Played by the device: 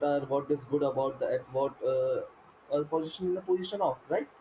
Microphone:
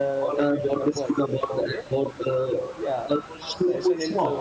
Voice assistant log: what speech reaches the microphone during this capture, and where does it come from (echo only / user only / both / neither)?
both